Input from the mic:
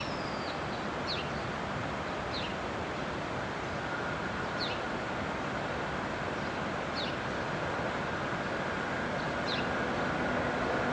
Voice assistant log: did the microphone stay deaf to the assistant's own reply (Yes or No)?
Yes